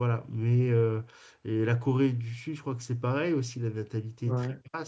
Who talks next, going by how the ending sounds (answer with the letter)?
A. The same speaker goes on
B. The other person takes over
A